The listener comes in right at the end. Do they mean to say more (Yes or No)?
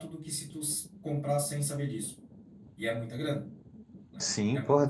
Yes